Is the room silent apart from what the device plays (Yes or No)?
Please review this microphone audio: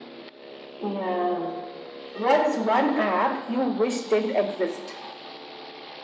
Yes